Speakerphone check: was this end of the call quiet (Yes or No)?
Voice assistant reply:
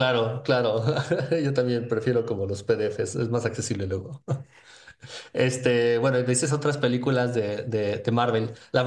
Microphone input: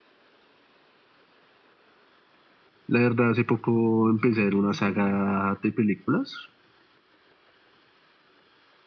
No